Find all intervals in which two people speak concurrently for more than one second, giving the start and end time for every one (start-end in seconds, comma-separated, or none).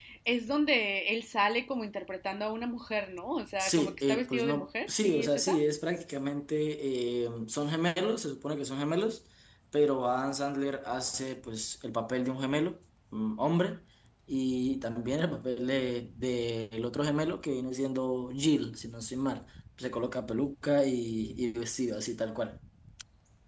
3.6-5.6